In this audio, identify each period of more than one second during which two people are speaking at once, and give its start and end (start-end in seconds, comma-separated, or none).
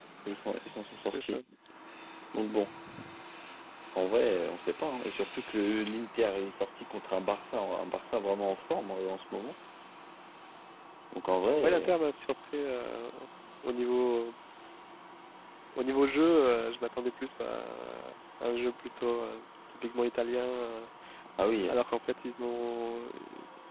none